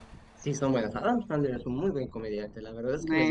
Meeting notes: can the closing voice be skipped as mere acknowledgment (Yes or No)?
No